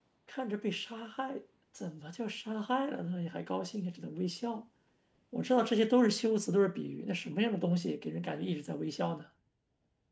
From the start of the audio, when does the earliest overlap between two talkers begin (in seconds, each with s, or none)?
none